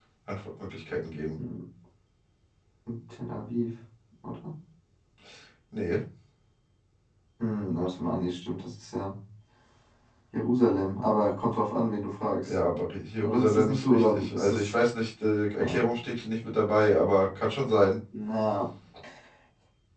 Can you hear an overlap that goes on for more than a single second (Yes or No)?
Yes